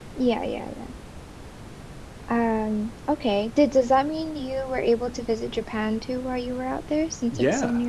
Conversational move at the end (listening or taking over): taking over